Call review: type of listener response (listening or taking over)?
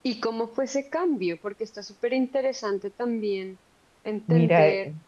taking over